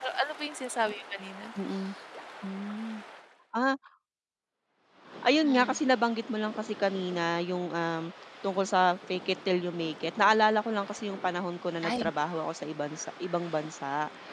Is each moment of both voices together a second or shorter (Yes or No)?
Yes